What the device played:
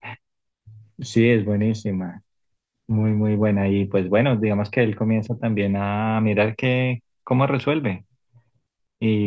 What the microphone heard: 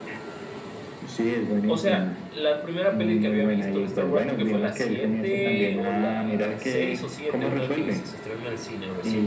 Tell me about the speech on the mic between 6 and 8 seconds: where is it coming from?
both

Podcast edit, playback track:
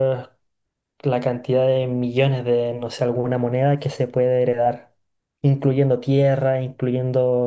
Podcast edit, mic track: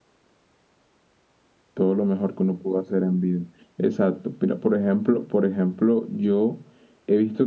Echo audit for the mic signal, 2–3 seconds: user only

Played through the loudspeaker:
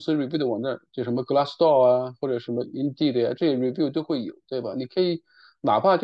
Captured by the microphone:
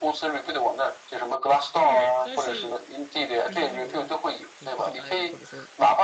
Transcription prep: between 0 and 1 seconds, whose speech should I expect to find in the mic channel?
echo only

